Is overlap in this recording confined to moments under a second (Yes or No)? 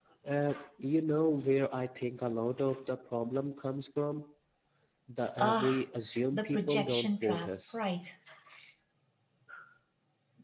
No